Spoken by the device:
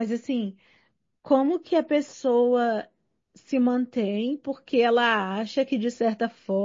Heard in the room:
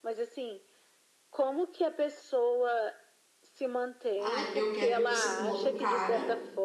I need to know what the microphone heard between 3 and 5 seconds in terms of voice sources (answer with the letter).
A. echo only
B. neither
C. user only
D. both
D